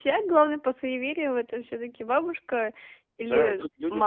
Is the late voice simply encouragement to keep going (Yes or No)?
No